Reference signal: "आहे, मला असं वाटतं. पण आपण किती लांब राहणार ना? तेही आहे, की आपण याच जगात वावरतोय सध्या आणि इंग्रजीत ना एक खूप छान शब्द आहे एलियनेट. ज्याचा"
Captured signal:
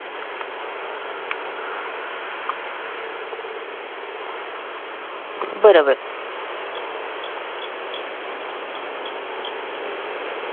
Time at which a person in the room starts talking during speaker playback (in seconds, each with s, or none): 5.5 s